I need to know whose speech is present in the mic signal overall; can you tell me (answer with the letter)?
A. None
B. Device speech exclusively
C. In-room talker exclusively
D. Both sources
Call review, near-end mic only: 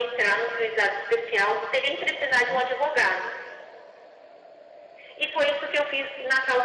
D